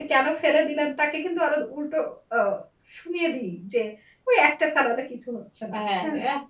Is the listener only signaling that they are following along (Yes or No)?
No